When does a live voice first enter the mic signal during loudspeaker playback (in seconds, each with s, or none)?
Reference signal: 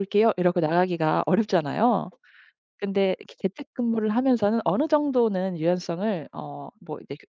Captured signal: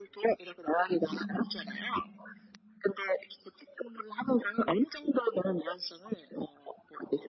0.9 s